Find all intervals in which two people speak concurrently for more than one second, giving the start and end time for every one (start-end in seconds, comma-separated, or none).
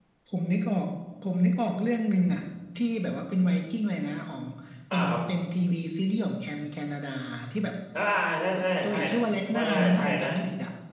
8.8-10.3